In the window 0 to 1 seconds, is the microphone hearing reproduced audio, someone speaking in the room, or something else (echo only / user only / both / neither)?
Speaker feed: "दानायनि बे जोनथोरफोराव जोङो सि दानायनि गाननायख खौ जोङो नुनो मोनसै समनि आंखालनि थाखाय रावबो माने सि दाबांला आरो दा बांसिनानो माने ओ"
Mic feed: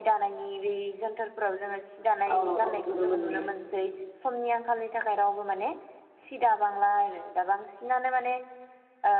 echo only